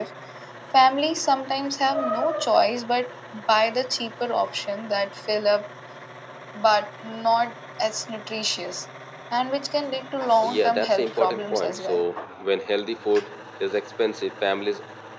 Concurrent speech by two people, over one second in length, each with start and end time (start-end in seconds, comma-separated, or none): 10.4-12.0